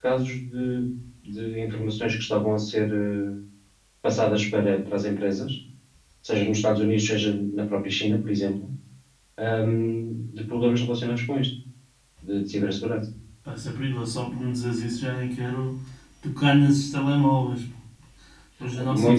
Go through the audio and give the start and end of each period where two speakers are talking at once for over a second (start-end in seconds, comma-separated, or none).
none